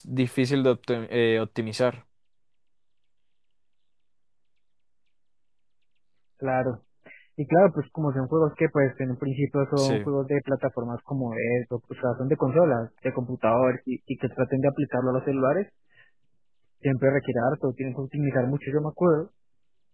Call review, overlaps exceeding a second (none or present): none